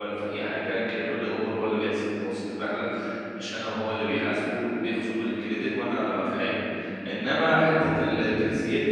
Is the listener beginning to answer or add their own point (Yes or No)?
No